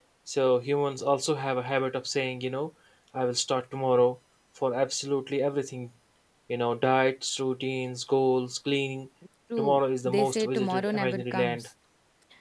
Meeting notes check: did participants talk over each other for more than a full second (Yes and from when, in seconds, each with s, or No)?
Yes, from 9.6 s